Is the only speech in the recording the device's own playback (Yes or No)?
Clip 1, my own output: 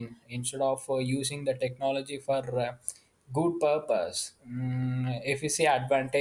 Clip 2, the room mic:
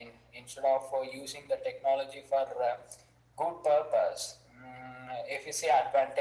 Yes